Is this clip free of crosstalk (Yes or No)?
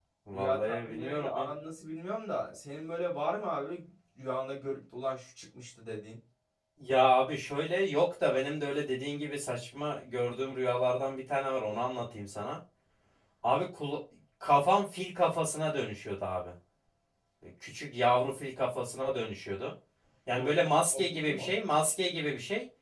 No